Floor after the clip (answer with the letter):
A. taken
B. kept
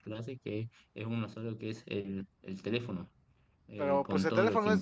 A